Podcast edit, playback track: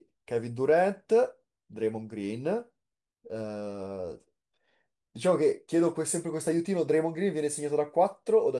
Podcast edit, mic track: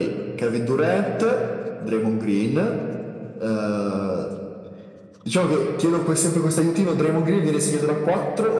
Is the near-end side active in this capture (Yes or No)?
No